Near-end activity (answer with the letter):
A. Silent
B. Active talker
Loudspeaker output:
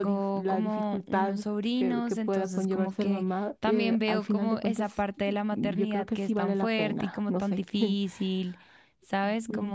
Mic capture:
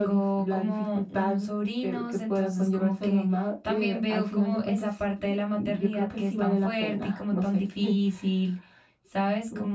A